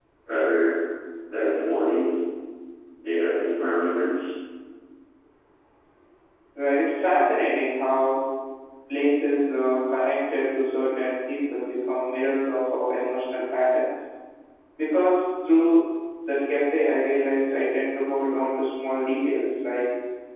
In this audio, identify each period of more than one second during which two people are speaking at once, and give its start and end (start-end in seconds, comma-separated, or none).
none